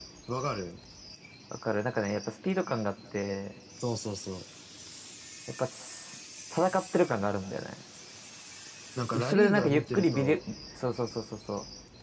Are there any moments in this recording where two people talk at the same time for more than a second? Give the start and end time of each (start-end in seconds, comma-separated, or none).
9.1-10.4